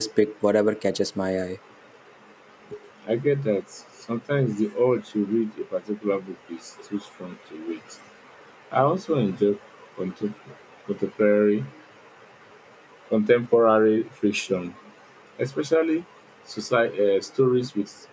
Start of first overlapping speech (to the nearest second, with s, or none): none